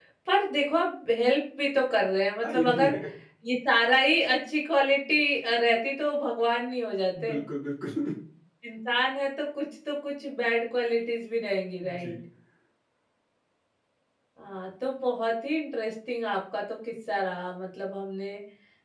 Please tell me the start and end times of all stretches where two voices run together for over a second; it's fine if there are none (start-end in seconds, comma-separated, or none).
none